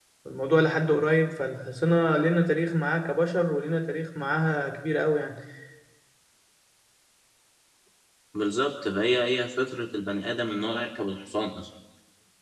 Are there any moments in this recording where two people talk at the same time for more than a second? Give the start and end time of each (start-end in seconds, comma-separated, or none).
none